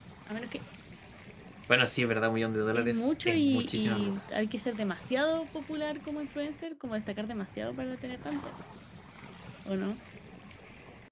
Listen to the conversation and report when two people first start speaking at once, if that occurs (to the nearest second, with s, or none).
3 s